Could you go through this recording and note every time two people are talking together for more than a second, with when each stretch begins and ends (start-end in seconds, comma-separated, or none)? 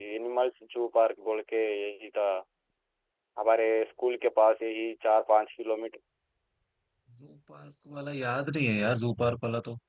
none